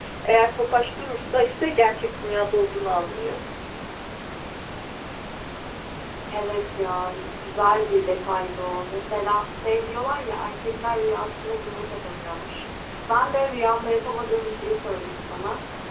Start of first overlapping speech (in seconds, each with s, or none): none